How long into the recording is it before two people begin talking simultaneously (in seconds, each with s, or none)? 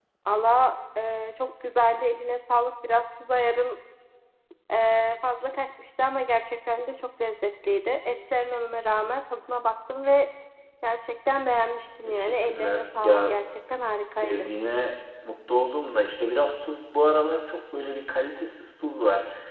12.0 s